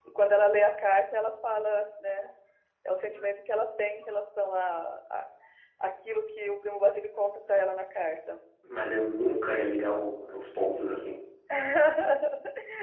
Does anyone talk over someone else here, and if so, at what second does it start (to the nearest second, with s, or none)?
none